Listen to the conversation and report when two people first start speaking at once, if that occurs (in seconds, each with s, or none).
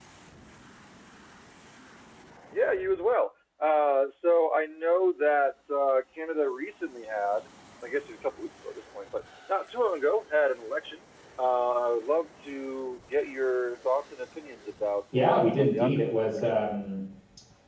15.1 s